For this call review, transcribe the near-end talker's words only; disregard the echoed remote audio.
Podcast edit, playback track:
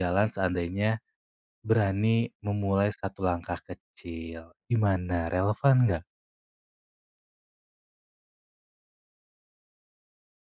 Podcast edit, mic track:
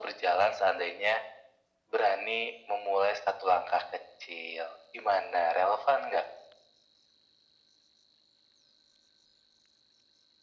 none

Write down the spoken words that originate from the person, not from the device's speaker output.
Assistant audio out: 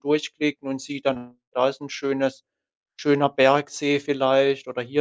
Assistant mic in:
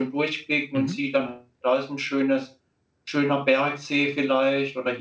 Mhm.

